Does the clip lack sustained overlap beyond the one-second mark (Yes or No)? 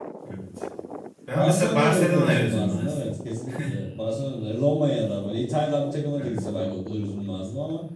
No